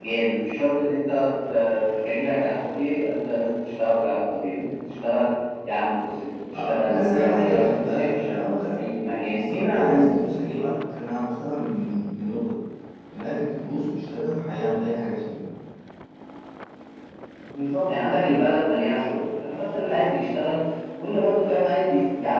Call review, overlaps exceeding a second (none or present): present